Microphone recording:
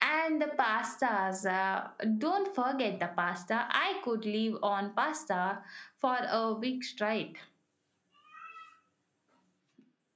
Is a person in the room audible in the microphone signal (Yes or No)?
No